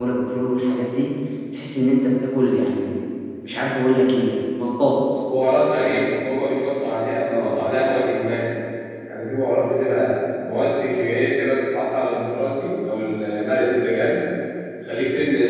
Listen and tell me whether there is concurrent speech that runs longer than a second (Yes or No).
No